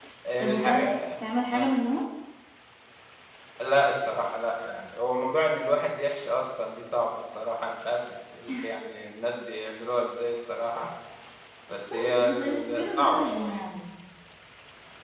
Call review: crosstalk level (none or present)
present